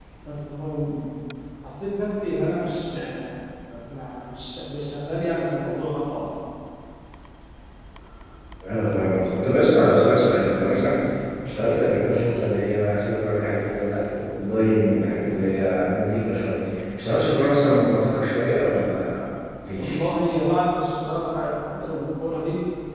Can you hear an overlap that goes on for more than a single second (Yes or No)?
No